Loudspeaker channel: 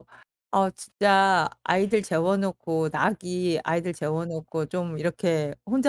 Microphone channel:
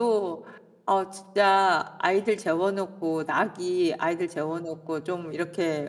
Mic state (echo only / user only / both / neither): echo only